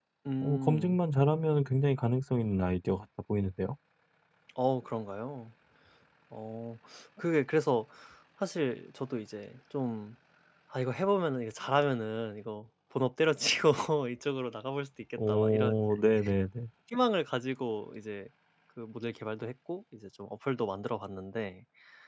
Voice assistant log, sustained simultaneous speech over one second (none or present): none